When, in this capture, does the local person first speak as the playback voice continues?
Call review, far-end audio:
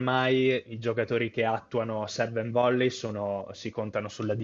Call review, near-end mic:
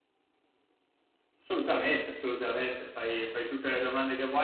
1.4 s

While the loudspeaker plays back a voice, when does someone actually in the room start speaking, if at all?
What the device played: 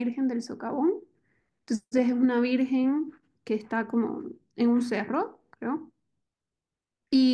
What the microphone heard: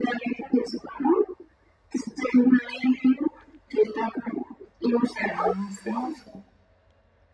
5.3 s

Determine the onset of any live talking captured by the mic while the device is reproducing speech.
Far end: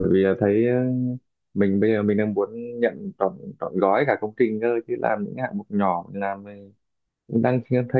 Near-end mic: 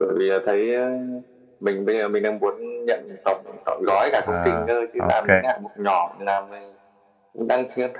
4.2 s

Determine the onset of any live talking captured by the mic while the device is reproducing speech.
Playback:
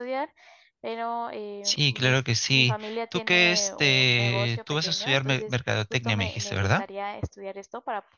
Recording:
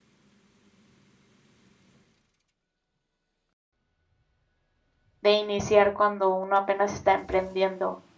5.2 s

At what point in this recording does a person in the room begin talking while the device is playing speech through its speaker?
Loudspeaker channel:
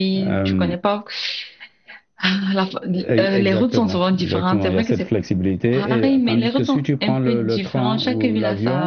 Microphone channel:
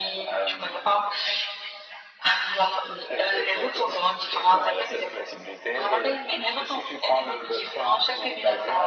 none

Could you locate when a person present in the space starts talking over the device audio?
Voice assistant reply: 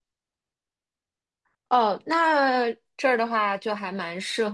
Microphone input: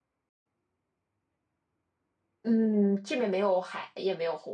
2.4 s

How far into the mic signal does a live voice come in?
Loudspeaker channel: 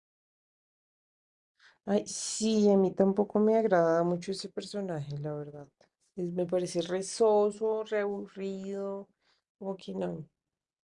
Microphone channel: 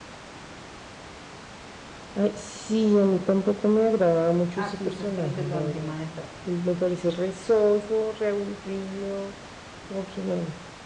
4.5 s

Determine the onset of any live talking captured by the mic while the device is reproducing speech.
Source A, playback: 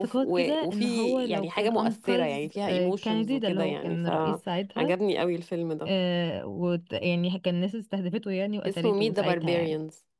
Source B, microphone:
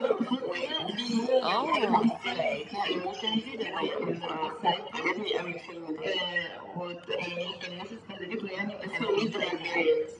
1.4 s

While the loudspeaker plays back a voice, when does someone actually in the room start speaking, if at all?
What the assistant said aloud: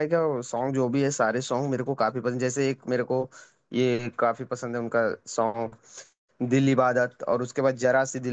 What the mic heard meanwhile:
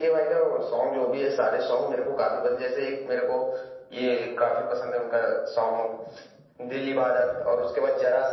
none

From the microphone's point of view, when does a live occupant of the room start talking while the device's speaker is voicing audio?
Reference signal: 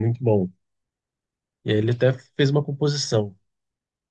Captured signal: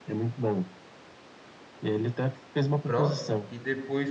2.8 s

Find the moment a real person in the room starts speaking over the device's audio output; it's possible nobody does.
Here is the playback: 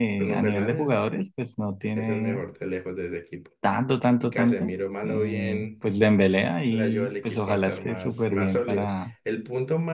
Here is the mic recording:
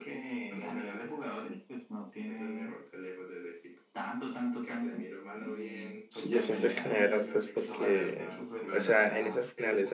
6.1 s

